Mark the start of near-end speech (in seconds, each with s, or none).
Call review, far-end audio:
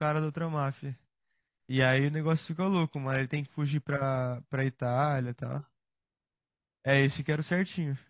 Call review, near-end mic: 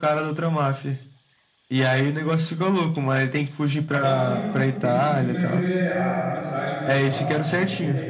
4.0 s